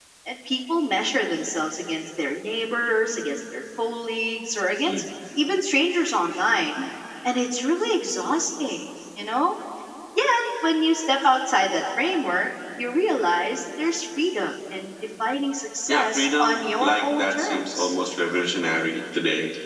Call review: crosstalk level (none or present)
present